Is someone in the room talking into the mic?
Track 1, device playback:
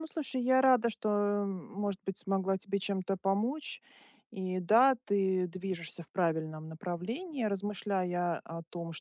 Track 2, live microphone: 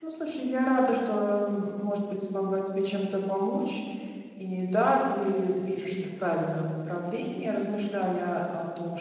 No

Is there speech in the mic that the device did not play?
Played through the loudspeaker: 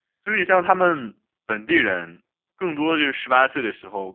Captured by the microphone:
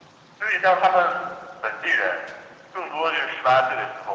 No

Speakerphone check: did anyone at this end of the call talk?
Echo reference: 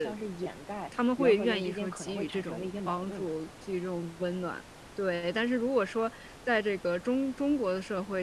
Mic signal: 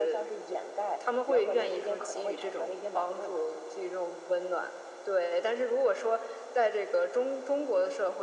No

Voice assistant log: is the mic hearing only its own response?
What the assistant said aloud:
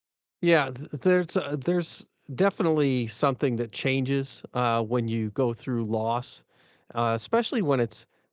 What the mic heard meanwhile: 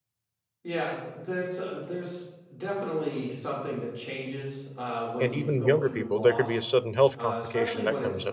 No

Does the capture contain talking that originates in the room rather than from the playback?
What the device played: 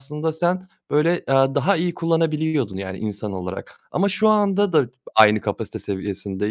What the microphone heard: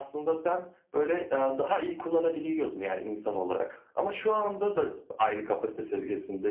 No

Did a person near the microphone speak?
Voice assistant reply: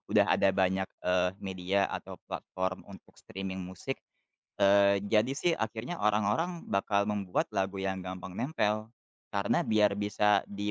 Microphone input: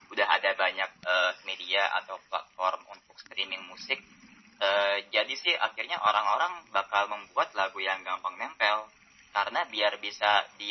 No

